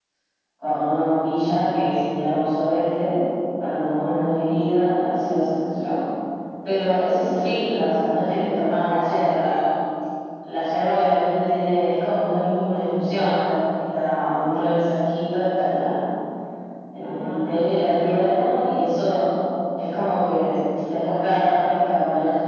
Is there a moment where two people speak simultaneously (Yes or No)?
Yes